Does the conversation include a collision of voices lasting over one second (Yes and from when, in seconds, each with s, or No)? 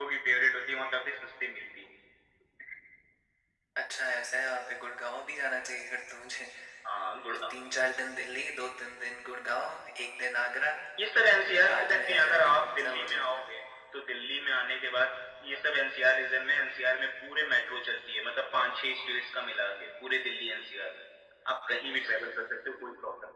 Yes, from 11.7 s